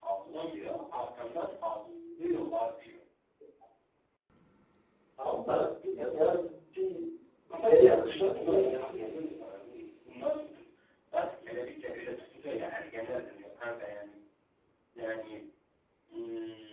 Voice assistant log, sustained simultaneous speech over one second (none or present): present